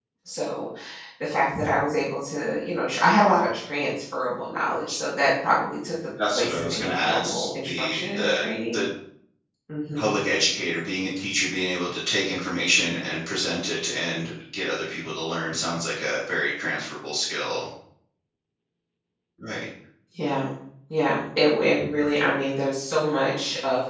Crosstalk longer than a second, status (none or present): present